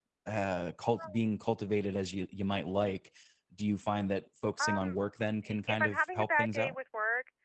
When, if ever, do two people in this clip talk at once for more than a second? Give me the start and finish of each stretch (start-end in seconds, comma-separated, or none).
5.4-6.8